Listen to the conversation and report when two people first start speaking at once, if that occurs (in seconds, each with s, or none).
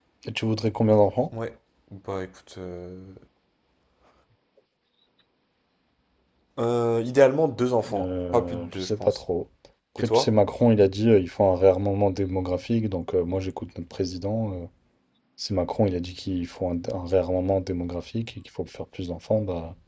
8.0 s